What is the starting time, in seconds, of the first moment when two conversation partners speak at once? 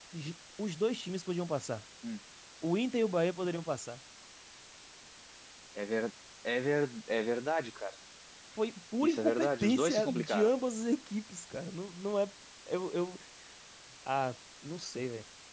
9.0 s

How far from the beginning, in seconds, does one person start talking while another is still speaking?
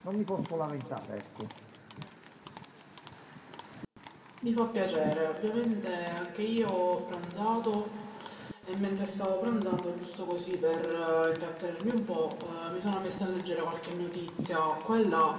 none

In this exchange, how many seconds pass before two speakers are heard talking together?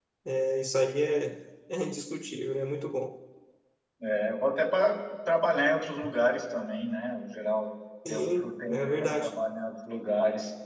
8.1 s

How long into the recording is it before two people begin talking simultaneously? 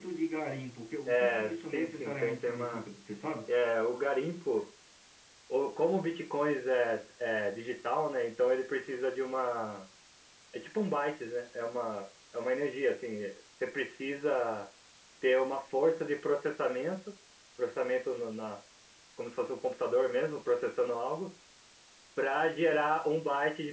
1.1 s

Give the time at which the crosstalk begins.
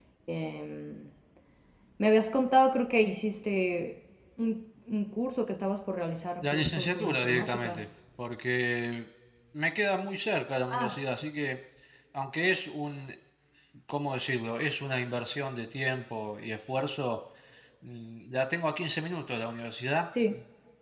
6.4 s

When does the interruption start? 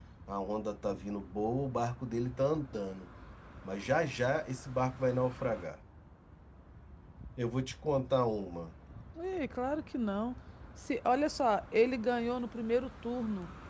none

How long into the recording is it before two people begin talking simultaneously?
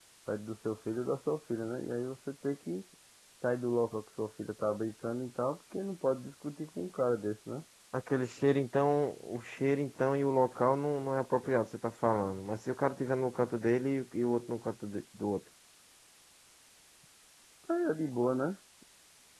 none

